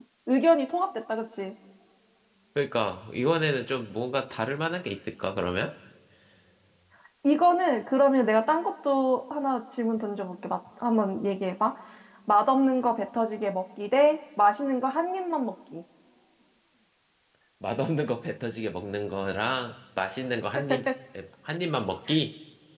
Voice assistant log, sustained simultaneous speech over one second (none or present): none